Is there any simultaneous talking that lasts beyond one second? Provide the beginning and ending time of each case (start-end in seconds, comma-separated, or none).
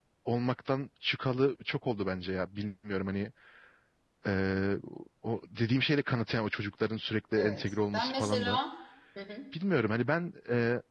7.4-8.6